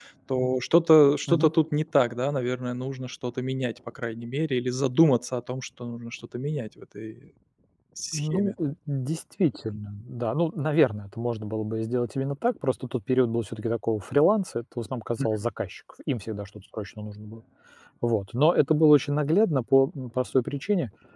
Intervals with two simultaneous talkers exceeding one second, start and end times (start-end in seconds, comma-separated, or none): none